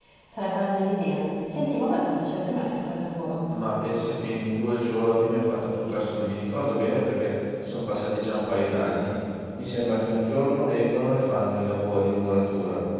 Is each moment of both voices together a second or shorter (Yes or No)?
Yes